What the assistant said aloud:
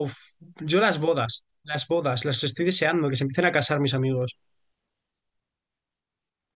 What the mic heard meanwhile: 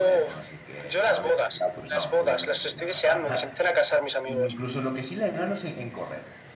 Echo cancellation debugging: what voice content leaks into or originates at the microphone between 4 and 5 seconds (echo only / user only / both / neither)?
both